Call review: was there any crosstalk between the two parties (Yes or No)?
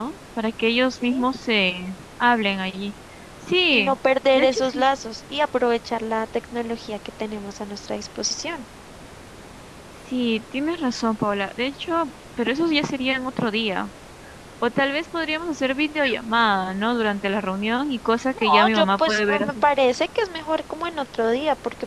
Yes